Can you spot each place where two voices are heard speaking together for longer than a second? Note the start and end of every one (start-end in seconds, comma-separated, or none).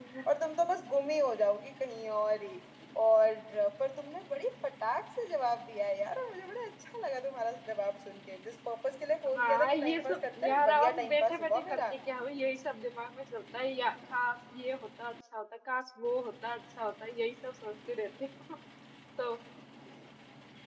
9.4-11.8